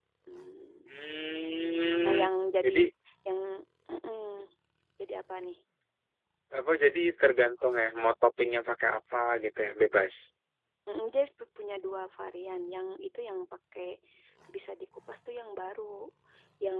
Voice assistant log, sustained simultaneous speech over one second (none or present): none